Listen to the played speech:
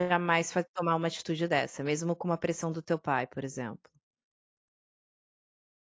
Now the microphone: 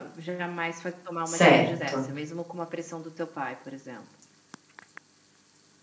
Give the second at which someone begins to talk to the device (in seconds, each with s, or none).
1.2 s